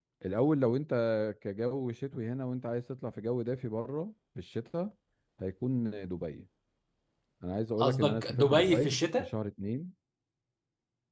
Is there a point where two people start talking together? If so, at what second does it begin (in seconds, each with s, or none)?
7.8 s